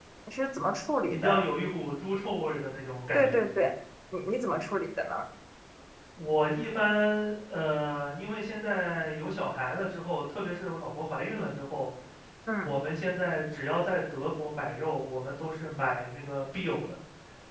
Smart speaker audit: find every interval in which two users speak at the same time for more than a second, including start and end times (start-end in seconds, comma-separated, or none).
none